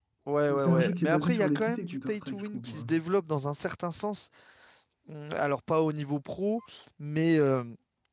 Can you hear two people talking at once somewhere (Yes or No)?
Yes